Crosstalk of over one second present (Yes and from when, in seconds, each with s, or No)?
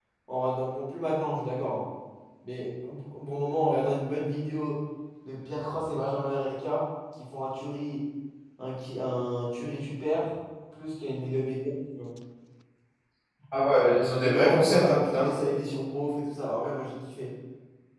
Yes, from 13.9 s